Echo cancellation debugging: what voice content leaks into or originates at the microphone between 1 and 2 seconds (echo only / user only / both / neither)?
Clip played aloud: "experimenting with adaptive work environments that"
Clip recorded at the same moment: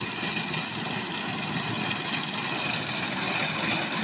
neither